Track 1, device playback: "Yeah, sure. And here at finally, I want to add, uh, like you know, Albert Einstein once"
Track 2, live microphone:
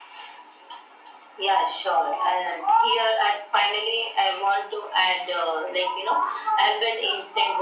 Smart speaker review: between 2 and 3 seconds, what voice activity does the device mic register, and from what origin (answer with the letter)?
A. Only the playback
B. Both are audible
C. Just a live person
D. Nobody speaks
A